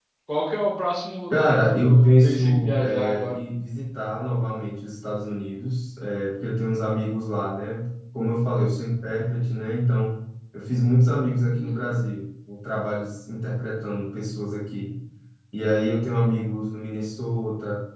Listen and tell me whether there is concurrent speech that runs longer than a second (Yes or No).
Yes